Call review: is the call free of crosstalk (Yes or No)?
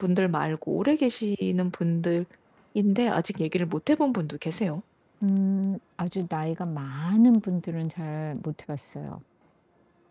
Yes